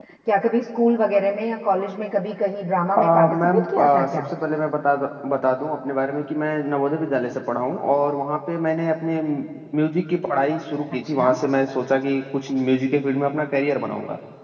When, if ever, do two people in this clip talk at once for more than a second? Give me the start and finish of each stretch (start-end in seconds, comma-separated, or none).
3.0-4.2